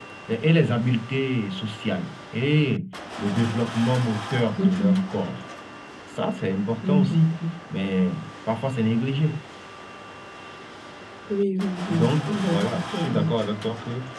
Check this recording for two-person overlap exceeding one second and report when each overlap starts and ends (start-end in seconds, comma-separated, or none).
11.9-13.3